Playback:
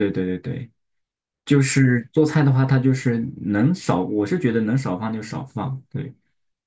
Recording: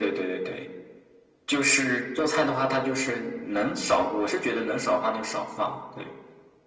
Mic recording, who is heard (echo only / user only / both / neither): echo only